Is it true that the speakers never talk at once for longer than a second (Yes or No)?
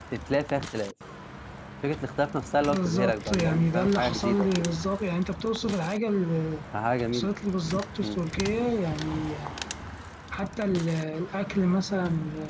No